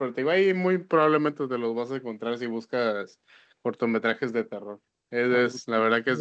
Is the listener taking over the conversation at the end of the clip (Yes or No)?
No